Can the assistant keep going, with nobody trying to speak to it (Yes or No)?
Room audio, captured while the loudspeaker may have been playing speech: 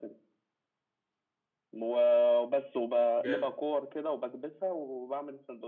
No